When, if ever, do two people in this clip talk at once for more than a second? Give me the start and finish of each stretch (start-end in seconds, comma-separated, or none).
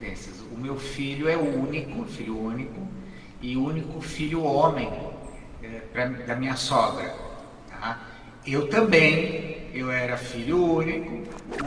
none